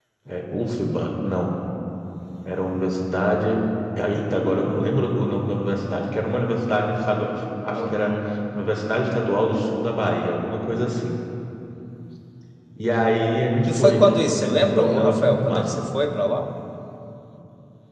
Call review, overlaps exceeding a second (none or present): present